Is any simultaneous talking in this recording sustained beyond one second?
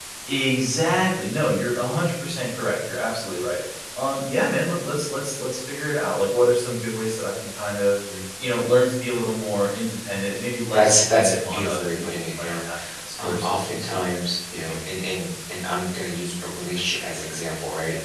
Yes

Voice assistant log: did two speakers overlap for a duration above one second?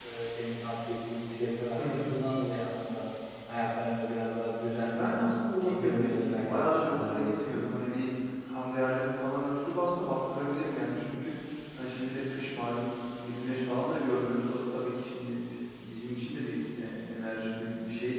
Yes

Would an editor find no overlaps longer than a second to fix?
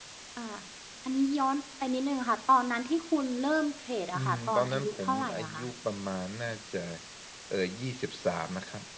No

